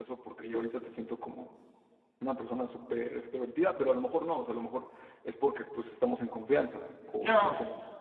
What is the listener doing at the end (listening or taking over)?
taking over